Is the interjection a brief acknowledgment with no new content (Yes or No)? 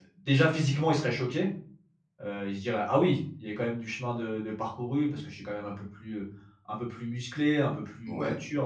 Yes